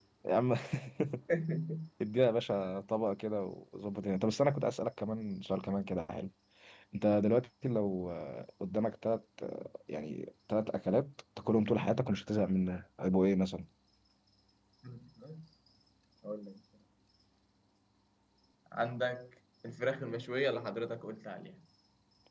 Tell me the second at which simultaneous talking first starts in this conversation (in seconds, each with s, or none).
none